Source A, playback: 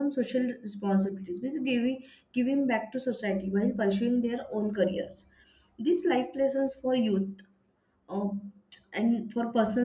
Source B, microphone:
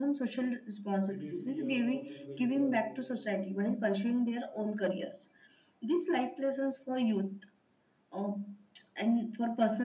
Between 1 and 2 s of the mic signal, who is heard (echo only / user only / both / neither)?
both